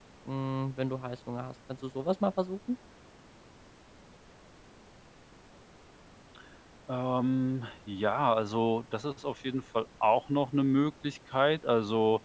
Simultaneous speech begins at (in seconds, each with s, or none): none